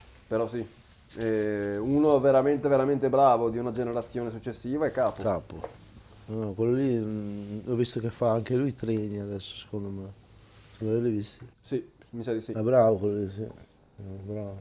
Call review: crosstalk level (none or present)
none